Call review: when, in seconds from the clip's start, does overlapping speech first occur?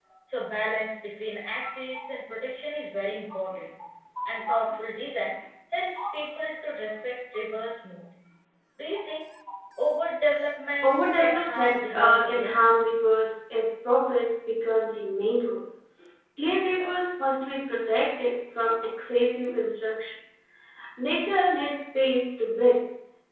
11 s

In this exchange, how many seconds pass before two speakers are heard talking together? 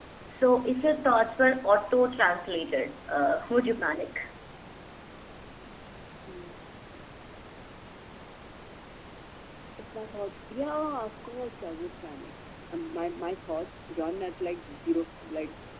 none

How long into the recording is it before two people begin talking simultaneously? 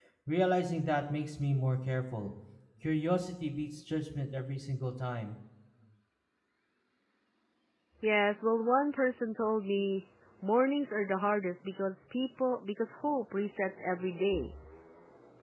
none

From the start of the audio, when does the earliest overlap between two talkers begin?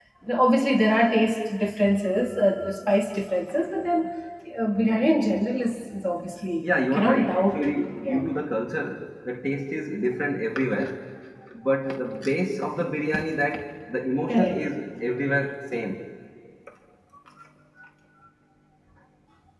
7 s

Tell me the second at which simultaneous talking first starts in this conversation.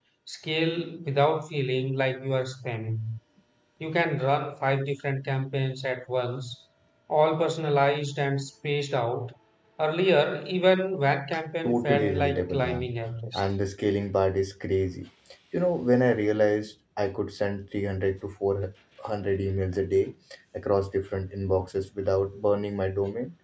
12 s

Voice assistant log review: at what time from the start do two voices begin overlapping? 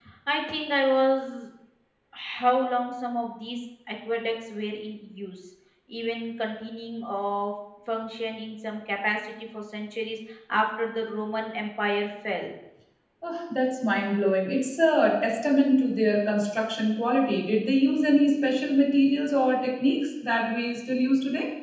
none

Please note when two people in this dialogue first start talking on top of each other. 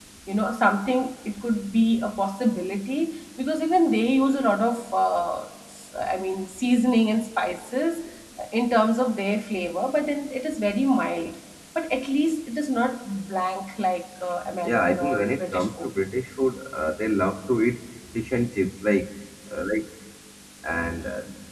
15 s

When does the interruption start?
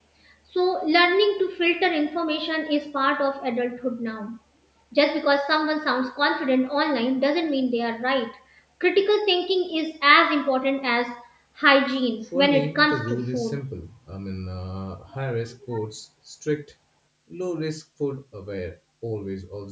12 s

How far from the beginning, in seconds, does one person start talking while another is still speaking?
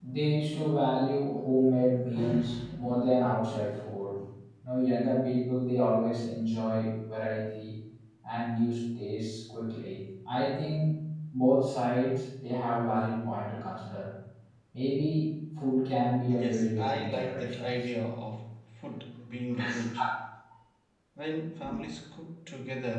16 s

